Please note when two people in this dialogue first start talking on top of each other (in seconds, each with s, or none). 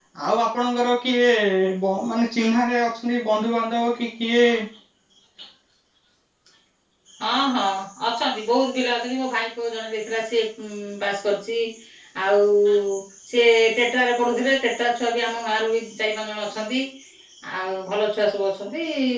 none